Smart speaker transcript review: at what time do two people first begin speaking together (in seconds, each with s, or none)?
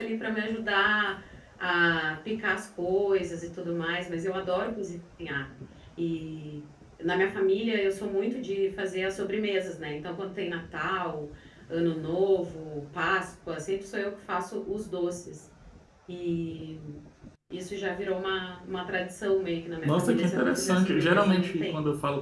19.8 s